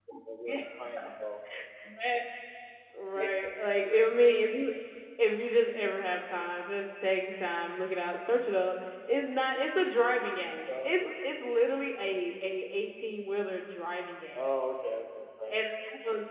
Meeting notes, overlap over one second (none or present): none